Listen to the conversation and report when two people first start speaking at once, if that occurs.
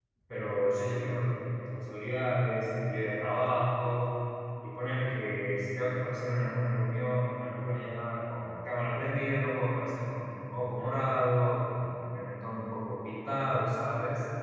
none

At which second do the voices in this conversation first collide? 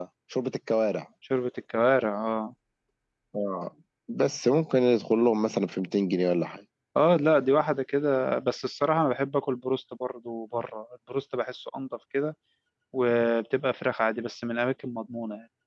none

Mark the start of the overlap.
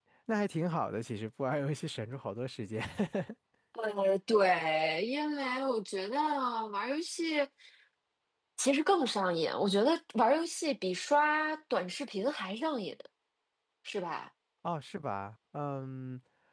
none

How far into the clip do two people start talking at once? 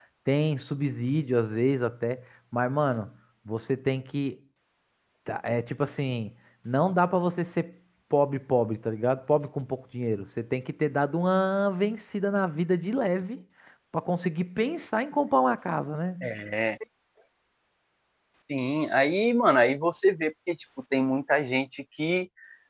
none

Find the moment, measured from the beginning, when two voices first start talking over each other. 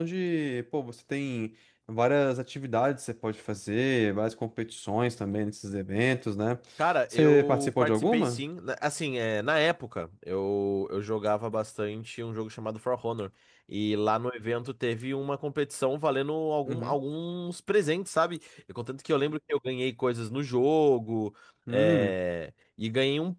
7 s

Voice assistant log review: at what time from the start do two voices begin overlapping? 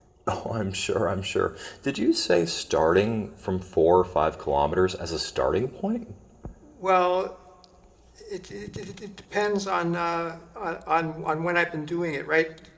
none

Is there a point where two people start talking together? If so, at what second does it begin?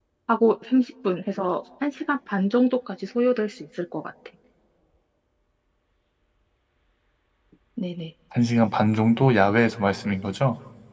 none

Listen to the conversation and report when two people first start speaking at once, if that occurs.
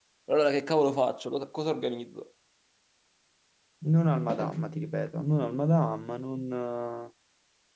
none

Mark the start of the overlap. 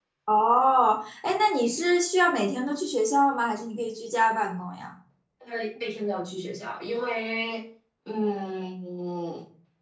none

